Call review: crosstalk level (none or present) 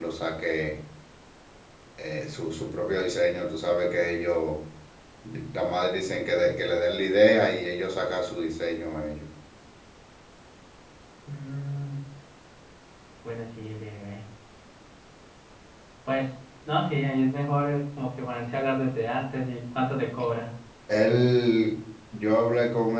none